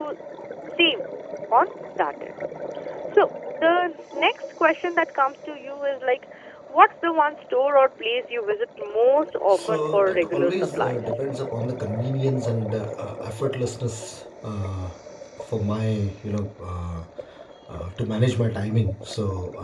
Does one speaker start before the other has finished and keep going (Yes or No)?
Yes